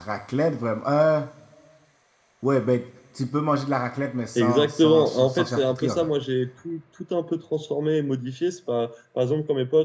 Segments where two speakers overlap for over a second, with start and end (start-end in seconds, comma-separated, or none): 4.3-6.1